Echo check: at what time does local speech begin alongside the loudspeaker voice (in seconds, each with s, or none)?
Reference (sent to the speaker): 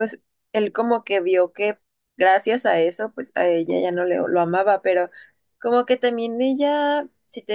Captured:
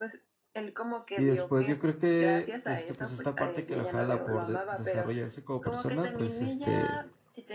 1.1 s